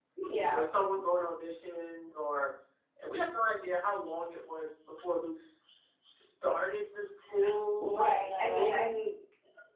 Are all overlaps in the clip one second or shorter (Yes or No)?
No